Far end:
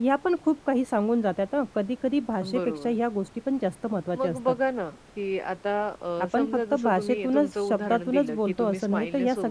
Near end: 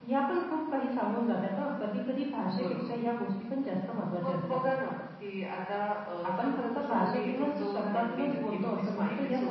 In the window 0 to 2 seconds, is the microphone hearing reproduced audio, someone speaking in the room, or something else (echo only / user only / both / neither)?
echo only